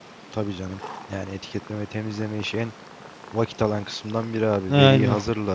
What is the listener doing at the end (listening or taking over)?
listening